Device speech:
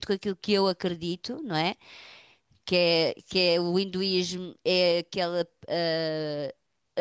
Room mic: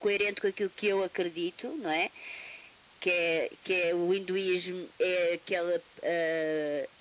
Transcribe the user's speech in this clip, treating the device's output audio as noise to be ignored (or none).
none